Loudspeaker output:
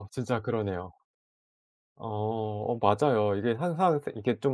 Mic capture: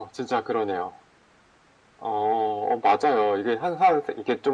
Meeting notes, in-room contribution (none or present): none